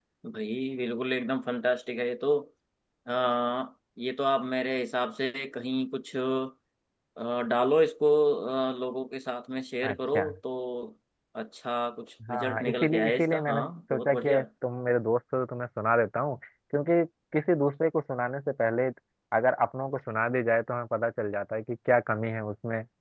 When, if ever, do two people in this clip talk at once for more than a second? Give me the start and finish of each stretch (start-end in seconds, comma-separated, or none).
12.3-14.4